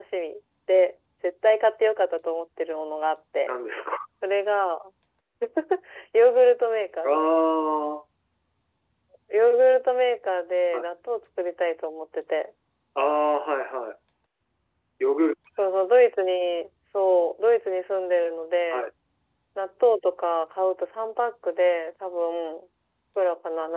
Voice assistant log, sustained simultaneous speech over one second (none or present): none